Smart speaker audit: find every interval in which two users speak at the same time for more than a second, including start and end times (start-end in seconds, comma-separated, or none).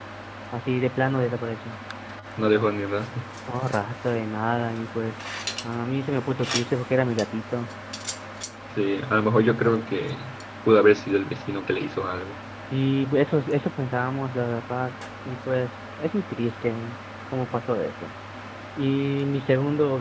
none